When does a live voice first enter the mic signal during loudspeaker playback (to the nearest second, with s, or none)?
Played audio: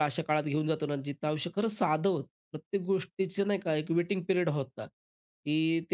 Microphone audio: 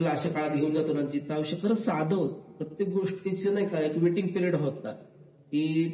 none